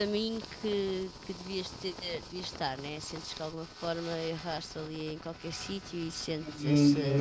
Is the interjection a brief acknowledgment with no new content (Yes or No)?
No